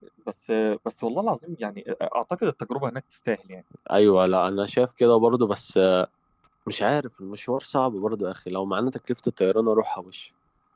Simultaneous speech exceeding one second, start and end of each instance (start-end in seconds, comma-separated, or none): none